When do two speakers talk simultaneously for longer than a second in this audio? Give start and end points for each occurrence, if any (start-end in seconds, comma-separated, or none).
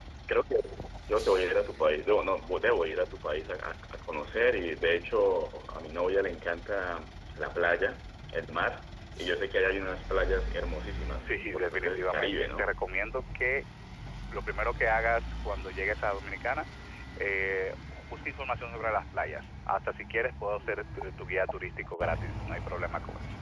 11.2-12.7